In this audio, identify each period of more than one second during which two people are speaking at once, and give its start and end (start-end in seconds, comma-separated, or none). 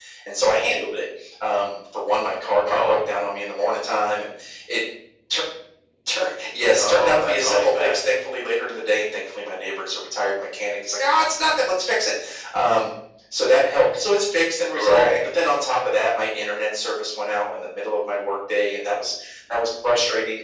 6.8-8.0